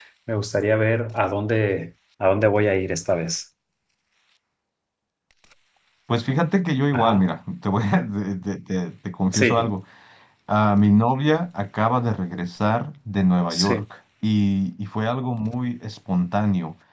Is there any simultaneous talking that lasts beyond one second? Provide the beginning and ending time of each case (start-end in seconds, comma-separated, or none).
none